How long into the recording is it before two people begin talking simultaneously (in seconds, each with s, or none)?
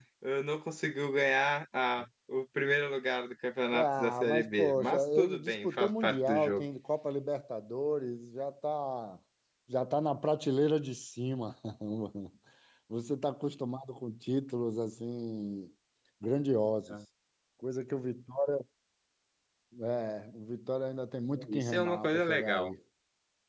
3.7 s